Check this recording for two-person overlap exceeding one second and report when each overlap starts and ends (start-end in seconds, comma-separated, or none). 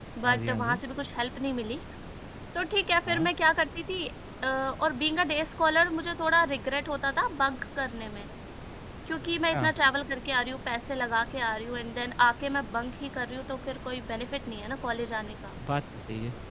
none